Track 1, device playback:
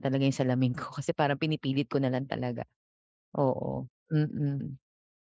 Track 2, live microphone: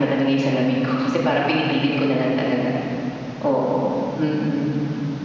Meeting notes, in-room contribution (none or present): none